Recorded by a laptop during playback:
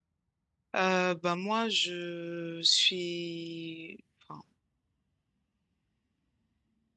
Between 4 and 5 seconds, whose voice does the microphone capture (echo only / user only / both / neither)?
user only